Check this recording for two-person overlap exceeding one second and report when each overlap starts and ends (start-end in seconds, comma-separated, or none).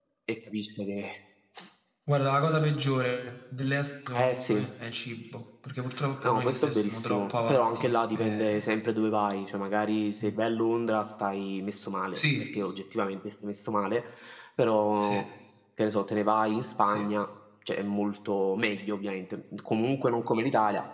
6.2-8.6